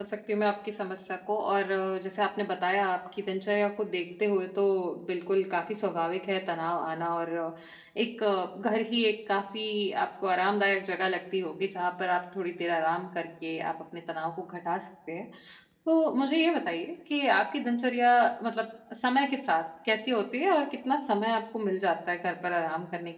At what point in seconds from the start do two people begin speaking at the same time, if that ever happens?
none

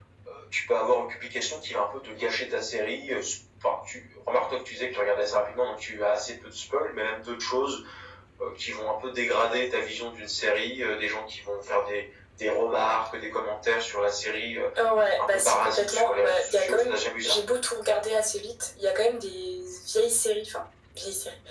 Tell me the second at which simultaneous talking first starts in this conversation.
15.2 s

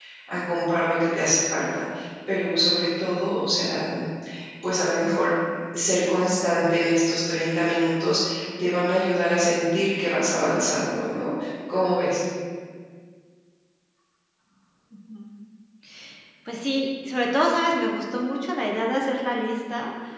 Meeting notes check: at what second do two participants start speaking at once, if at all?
none

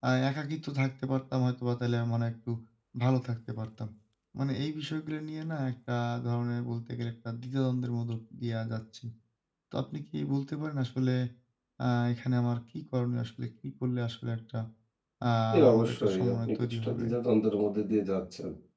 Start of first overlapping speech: 15.5 s

